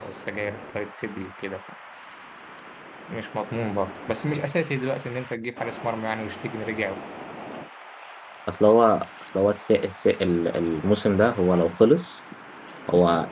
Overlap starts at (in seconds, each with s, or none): none